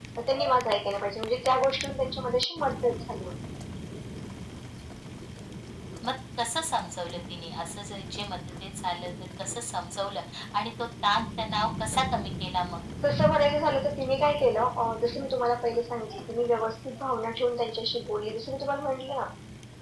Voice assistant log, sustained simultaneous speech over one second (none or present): none